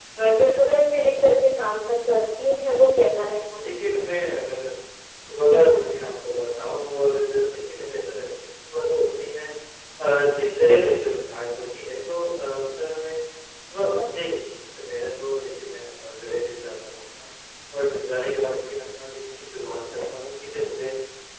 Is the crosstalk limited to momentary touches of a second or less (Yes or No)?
Yes